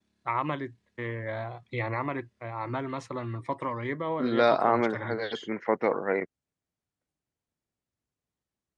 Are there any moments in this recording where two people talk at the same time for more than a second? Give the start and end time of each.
4.2-5.5

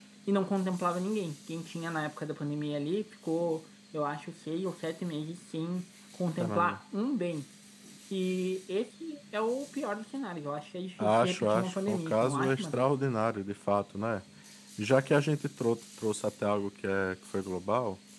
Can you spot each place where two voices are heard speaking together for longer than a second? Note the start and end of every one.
11.0-12.9

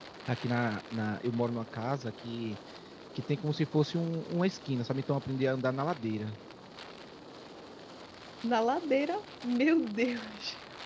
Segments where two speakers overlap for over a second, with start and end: none

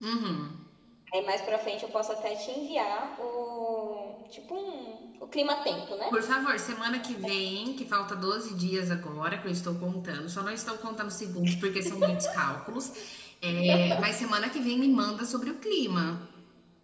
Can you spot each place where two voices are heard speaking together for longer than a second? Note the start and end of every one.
none

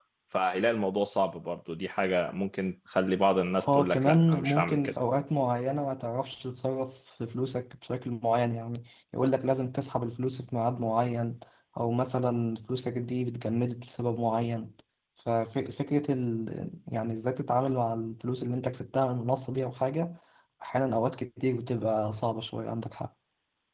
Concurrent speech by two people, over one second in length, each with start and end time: 3.5-4.9

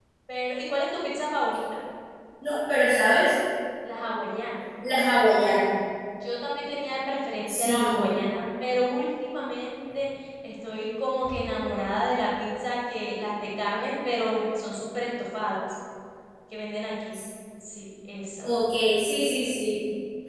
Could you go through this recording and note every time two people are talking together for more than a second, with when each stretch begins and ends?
none

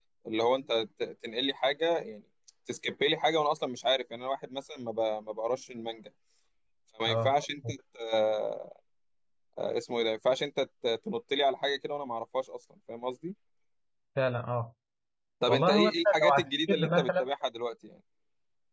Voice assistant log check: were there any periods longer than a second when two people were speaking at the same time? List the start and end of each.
15.5-17.2

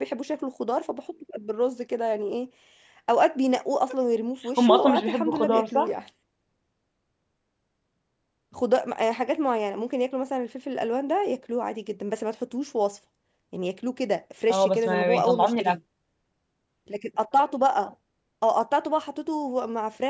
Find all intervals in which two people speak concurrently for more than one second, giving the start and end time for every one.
4.6-5.9, 14.5-15.8

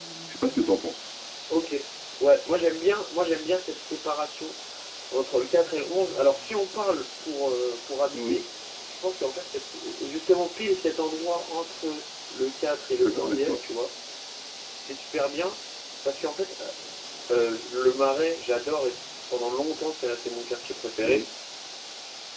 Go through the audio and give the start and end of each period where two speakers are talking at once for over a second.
none

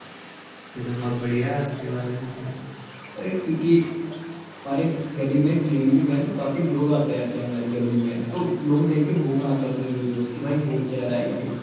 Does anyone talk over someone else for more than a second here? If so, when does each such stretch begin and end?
none

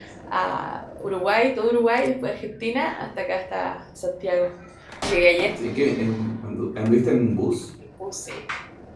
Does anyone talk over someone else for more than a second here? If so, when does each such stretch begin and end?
none

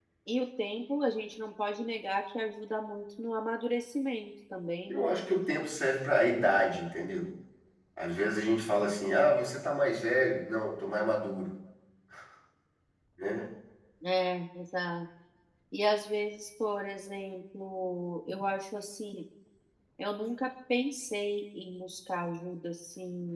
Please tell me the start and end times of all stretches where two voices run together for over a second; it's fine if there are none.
none

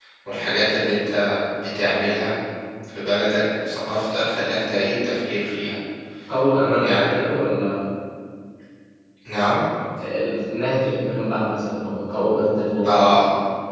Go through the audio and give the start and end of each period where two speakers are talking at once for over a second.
none

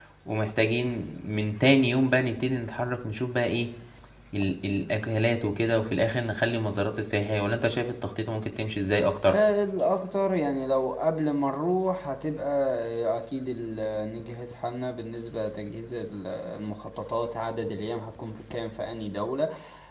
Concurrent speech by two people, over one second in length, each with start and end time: none

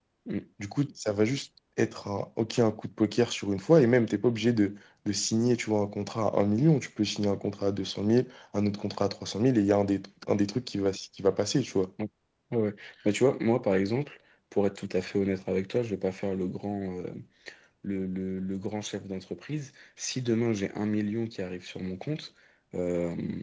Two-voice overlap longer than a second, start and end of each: none

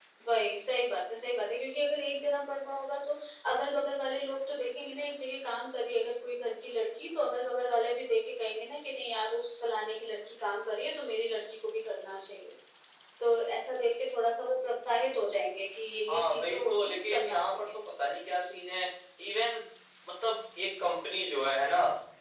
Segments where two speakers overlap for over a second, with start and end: 16.1-17.6

